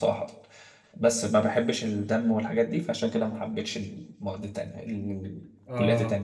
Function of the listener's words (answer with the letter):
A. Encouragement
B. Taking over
B